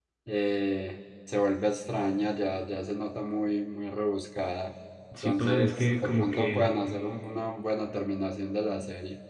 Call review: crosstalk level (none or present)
present